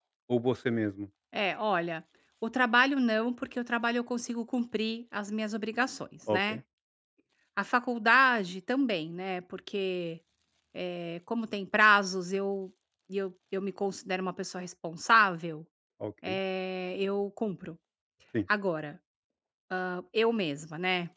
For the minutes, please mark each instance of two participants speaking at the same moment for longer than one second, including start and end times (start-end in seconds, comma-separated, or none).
none